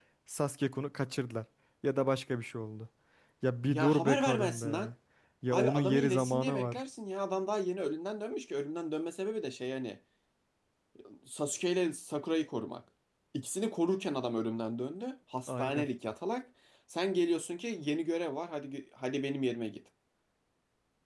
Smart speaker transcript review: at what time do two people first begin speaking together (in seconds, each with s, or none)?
3.7 s